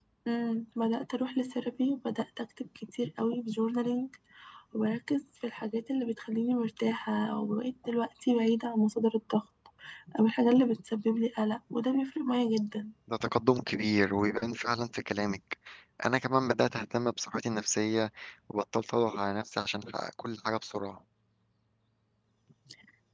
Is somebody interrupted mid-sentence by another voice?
No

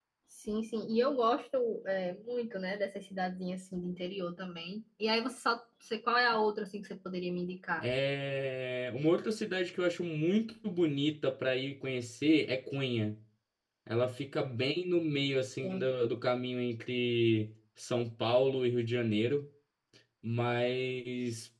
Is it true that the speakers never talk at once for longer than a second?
Yes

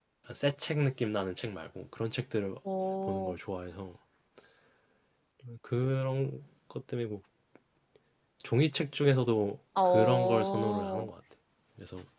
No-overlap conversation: No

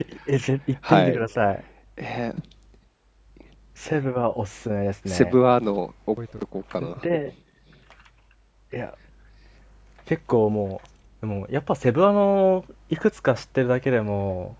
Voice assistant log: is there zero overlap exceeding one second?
Yes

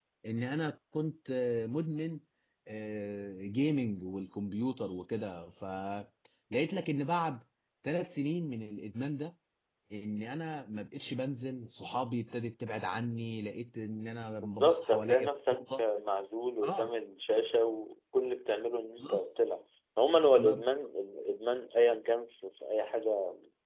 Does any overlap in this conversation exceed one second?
Yes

